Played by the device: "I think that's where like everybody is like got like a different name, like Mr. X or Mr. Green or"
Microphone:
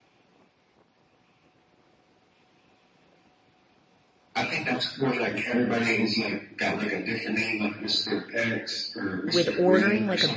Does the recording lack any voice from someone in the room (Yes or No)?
No